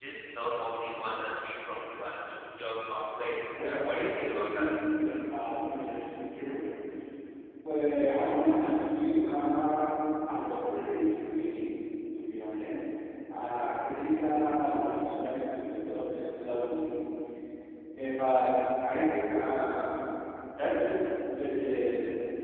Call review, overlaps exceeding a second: present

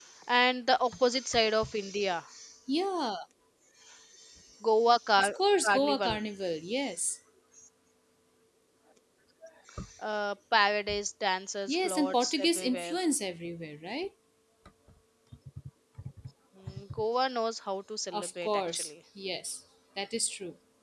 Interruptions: present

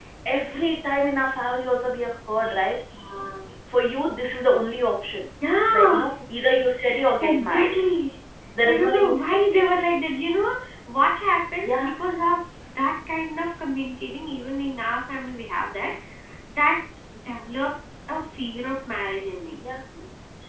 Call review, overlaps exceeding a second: present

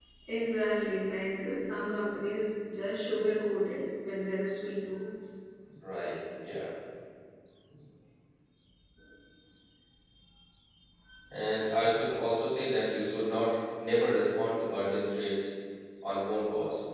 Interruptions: none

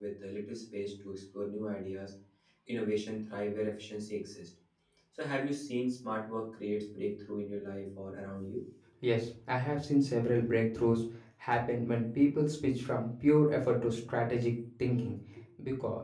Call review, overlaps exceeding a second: none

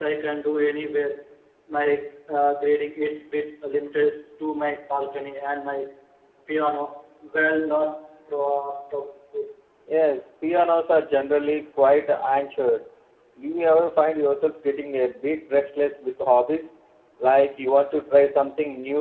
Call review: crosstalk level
none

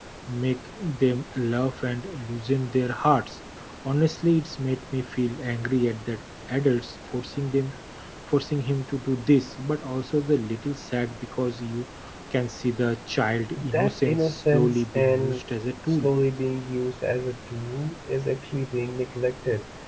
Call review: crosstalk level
present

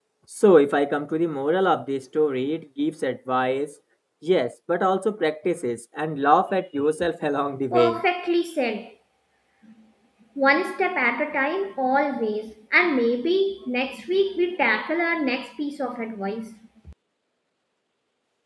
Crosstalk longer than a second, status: none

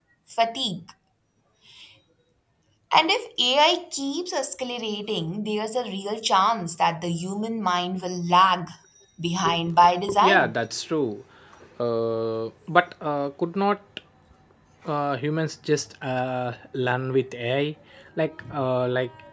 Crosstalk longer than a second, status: none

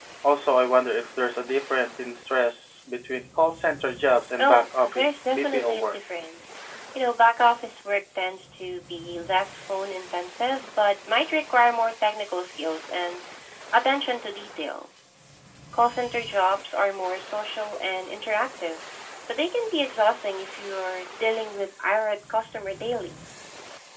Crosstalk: present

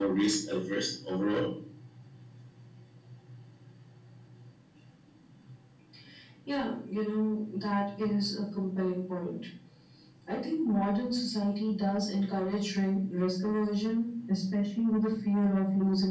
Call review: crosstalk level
none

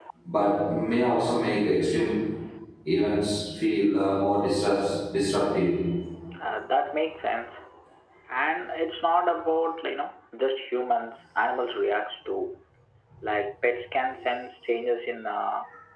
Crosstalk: none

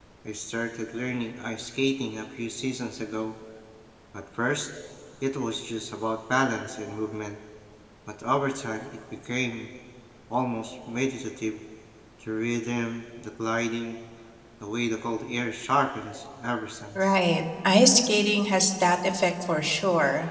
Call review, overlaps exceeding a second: none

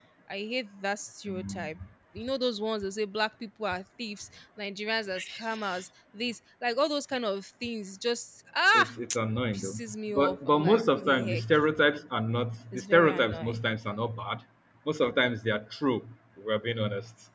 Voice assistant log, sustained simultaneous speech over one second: present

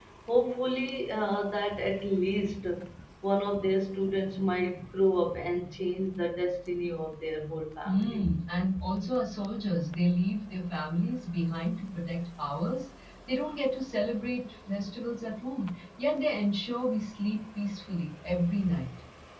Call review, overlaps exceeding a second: none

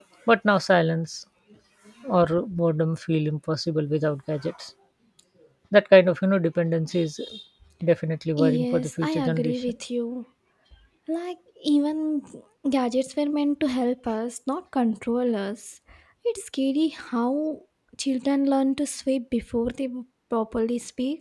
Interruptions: present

